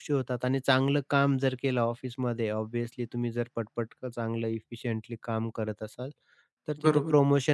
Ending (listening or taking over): listening